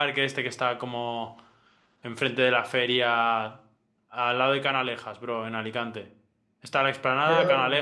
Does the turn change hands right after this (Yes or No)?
No